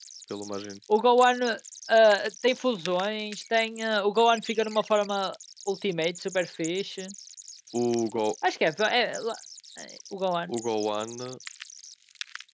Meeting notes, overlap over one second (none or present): none